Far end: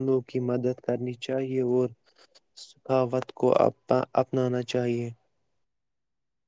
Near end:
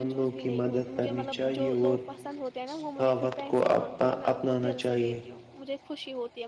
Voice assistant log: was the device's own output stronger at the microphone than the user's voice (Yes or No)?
Yes